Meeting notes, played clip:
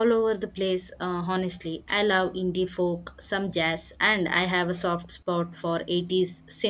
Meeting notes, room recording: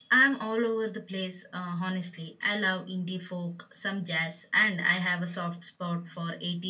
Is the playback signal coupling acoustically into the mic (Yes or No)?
Yes